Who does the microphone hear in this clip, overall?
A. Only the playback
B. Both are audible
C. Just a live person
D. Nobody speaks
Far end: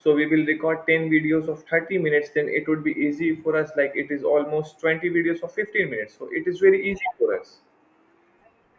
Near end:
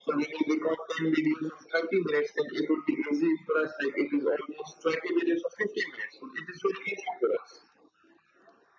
A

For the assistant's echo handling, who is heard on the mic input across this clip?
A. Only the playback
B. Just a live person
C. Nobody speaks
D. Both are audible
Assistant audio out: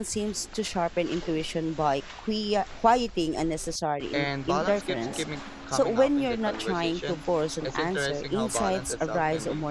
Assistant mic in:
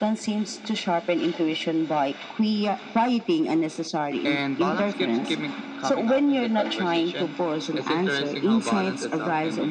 A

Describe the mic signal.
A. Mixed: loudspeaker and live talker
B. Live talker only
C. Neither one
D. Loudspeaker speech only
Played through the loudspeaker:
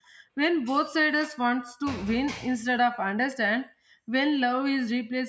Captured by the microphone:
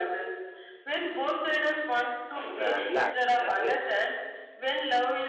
A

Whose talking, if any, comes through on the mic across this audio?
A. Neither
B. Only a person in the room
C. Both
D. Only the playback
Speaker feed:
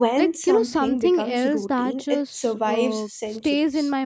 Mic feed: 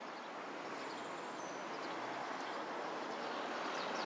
A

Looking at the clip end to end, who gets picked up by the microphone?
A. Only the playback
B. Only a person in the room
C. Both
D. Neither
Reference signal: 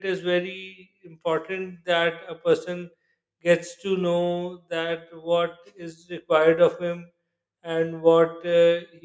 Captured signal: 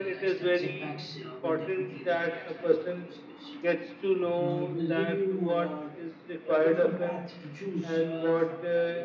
C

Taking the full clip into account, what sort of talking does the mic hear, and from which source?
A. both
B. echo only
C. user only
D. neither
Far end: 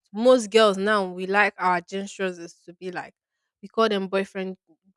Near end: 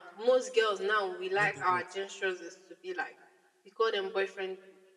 A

